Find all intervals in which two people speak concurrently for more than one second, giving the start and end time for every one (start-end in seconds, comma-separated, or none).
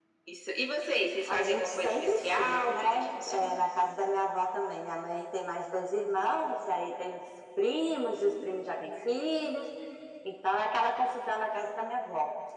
1.3-3.6